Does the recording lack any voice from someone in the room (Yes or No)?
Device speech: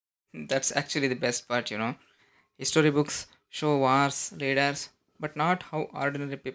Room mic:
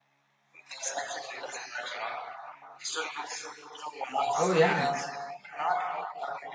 No